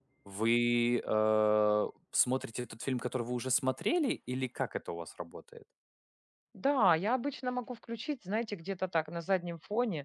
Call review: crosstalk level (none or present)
none